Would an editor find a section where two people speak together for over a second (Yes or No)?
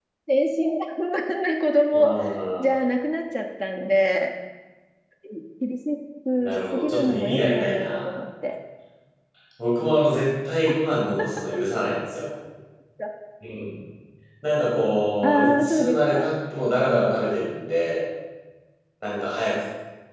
Yes